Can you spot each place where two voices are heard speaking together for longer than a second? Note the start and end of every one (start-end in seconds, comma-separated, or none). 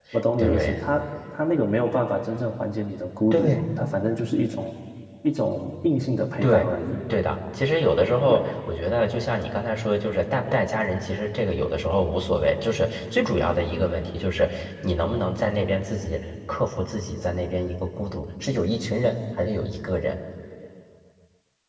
none